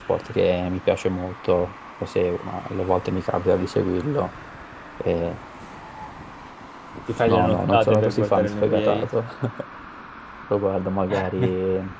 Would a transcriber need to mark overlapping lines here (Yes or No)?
Yes